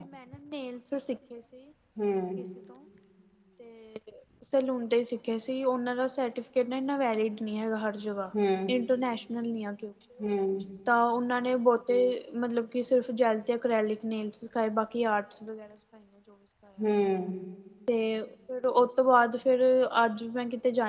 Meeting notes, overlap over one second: none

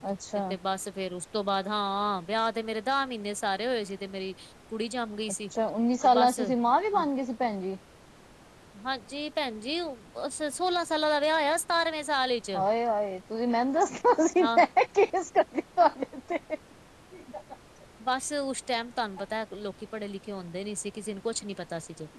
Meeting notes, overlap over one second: none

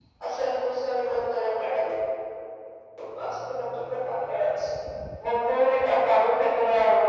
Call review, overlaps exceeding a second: none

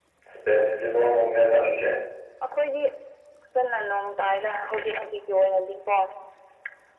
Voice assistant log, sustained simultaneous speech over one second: none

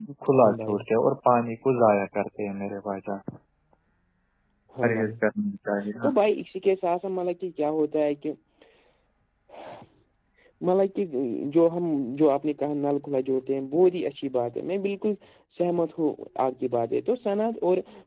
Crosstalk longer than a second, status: none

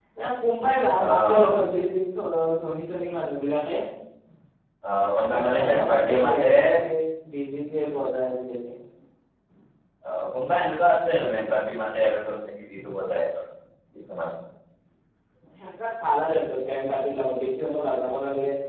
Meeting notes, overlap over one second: present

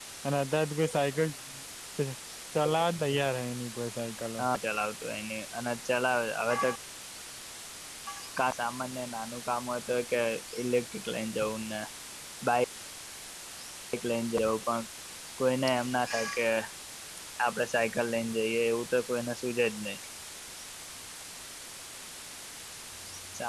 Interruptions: none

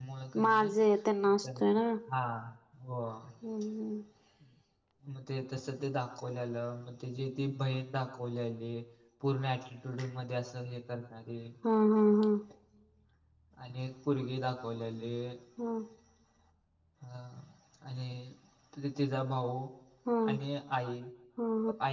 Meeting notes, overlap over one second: none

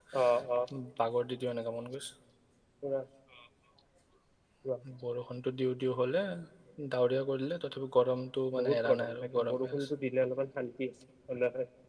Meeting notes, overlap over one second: present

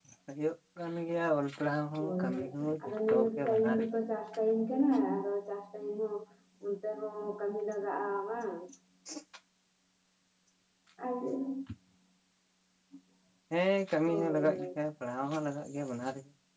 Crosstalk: present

